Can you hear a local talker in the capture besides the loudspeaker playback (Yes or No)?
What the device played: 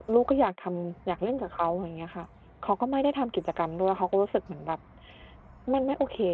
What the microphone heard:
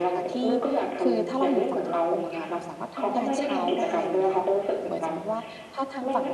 Yes